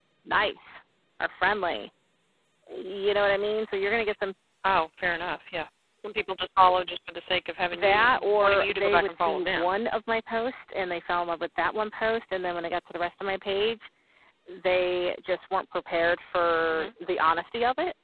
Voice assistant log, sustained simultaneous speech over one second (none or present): present